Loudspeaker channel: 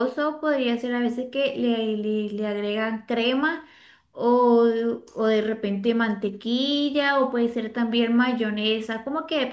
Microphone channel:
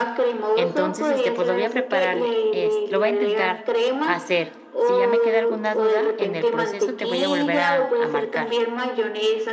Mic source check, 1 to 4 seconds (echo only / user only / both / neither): both